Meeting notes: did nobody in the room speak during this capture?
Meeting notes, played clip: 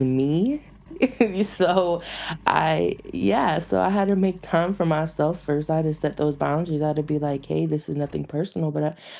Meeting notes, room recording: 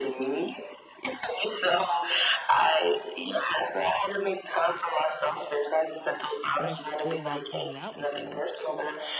No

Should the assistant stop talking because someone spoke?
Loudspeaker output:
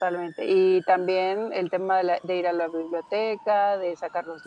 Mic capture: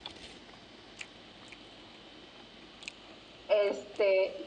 Yes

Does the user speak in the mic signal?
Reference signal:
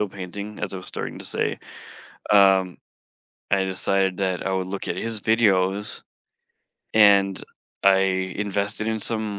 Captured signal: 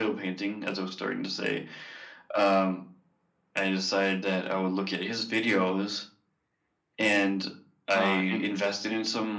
Yes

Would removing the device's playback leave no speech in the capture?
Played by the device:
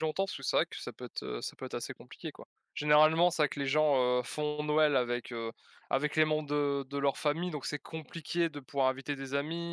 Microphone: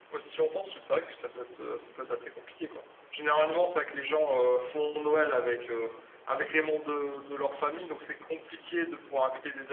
Yes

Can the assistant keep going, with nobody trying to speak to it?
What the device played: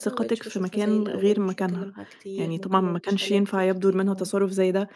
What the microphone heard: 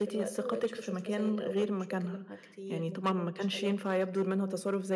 Yes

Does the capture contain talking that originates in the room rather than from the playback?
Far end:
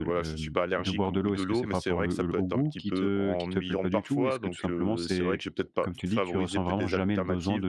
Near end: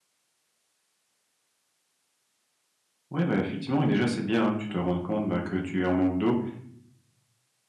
Yes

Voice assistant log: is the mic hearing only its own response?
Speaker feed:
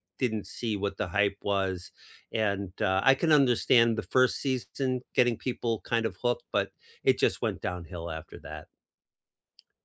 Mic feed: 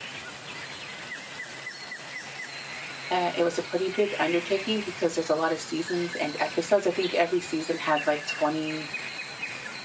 No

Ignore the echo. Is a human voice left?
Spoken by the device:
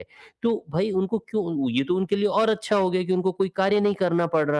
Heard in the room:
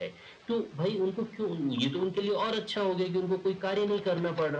No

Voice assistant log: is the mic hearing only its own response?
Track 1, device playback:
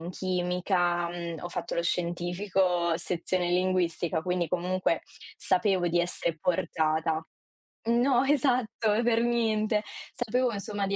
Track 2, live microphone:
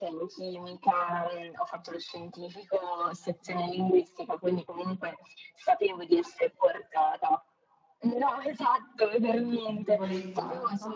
No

